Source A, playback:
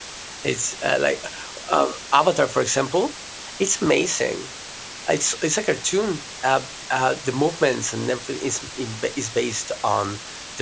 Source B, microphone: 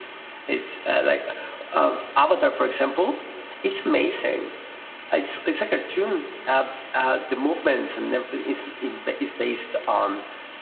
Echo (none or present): present